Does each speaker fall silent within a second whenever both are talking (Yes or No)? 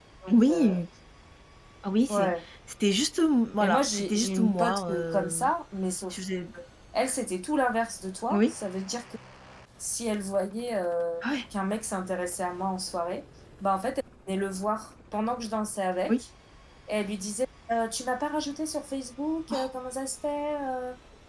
No